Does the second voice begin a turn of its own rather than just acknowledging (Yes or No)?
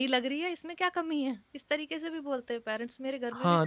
Yes